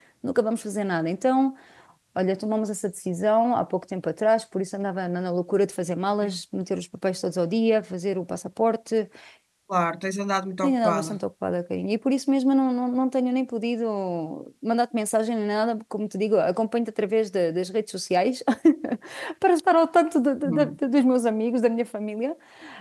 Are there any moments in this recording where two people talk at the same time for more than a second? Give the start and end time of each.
none

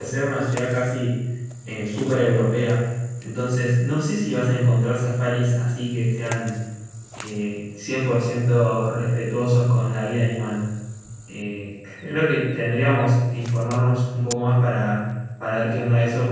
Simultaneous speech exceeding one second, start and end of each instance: none

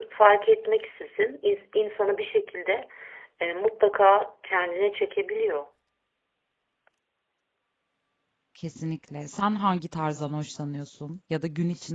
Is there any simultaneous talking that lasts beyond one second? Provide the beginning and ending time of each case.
none

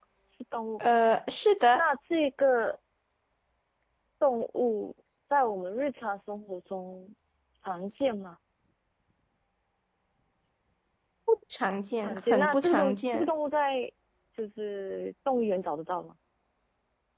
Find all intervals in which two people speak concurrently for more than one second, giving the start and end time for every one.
12.0-13.3

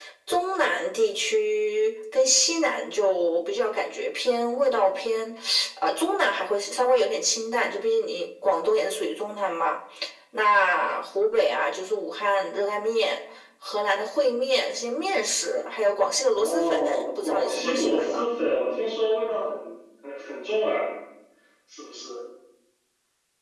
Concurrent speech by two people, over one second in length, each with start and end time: 16.3-18.2

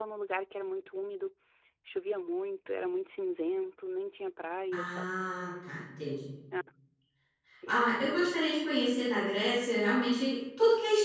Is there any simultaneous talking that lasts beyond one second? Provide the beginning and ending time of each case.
none

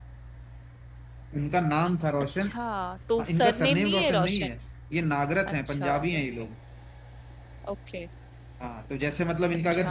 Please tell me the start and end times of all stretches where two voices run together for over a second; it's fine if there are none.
3.2-4.5

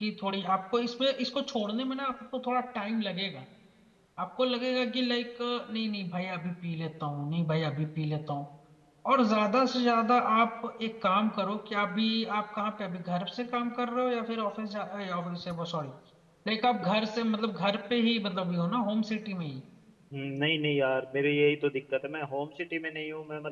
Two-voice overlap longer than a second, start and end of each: none

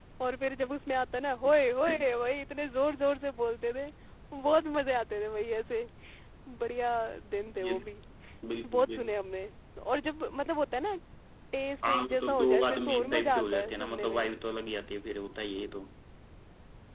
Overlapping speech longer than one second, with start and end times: 11.8-14.3

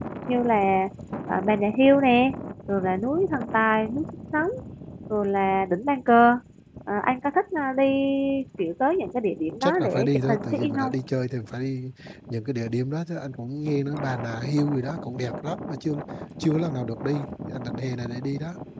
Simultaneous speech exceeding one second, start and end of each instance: 9.6-10.9

